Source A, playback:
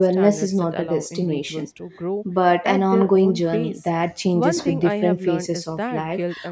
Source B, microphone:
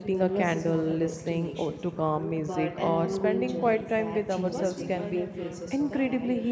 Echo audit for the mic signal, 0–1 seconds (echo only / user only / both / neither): both